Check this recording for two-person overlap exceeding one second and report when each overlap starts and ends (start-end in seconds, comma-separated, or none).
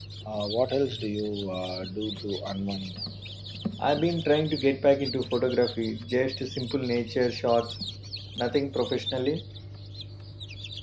none